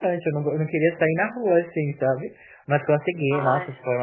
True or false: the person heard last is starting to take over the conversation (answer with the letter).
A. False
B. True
A